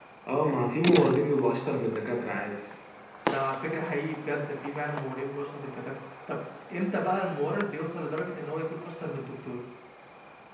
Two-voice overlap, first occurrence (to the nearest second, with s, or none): none